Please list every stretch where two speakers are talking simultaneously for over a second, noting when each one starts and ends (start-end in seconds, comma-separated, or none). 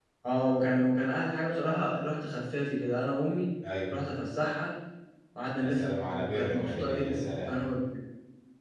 5.6-7.5